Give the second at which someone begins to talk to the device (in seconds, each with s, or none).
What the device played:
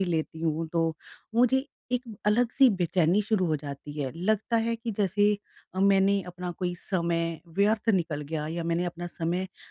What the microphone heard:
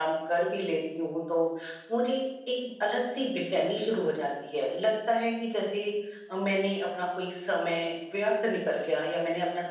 none